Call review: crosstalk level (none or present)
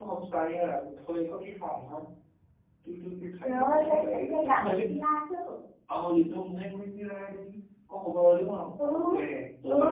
present